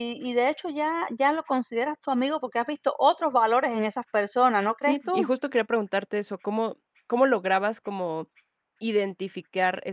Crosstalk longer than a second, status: none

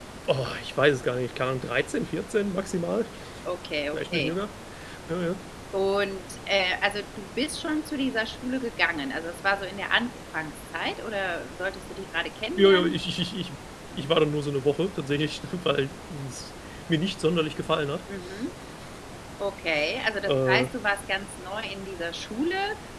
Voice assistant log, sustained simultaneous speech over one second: none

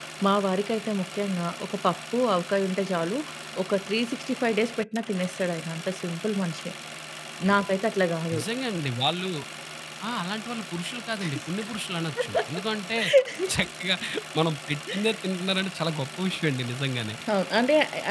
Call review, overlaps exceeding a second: none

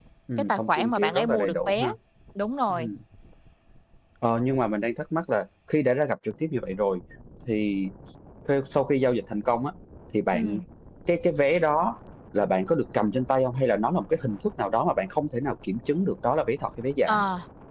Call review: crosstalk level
present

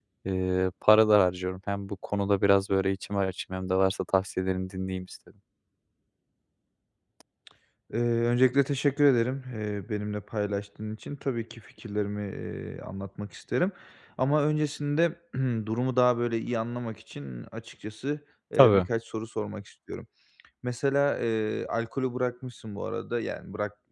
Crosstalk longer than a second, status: none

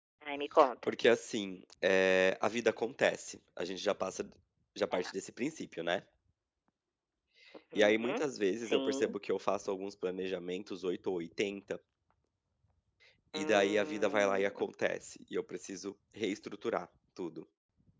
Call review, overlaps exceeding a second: present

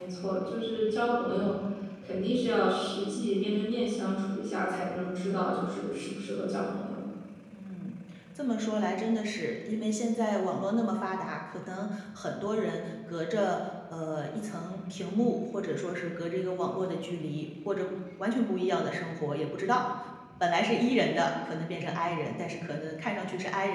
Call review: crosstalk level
none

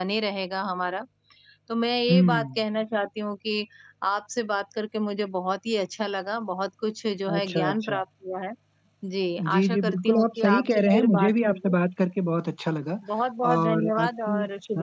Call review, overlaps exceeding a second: present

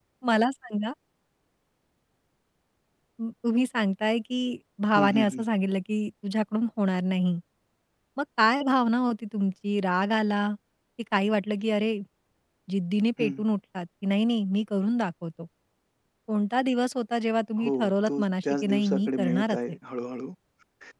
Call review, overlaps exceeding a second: present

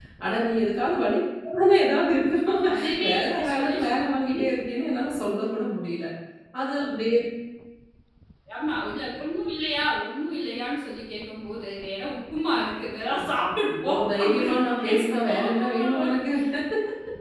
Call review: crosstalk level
present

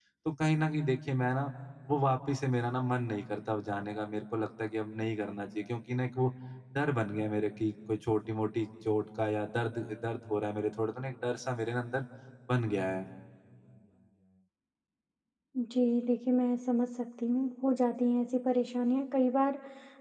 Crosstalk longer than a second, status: none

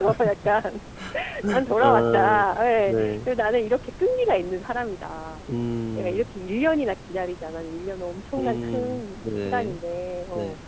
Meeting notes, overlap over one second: present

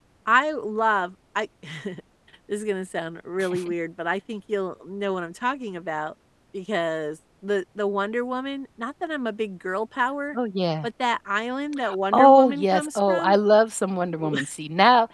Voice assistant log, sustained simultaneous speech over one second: present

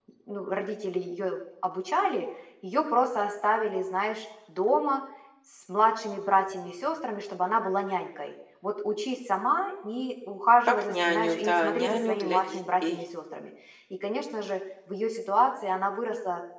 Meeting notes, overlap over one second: present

